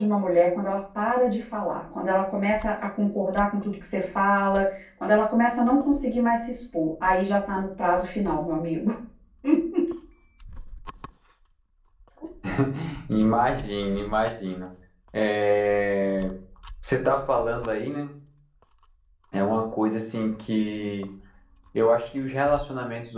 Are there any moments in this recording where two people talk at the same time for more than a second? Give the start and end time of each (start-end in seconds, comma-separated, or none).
none